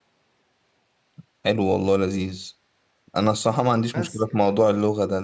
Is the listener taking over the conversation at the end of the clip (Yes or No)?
No